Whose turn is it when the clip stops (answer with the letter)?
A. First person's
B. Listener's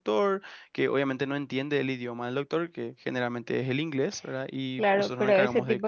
B